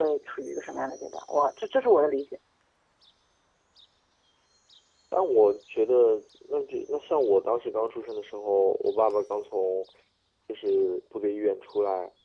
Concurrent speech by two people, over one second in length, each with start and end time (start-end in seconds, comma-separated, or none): none